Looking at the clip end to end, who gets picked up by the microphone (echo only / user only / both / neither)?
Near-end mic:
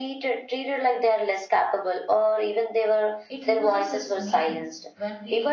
both